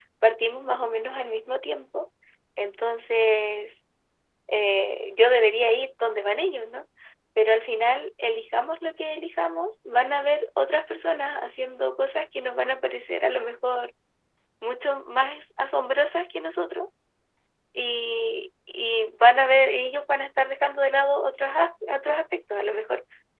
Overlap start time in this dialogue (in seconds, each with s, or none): none